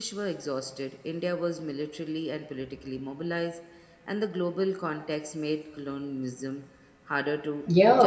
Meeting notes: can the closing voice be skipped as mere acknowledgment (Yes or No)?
No